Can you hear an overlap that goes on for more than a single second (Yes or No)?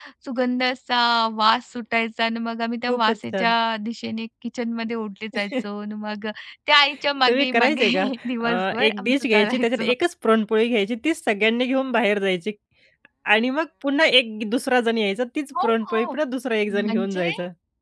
Yes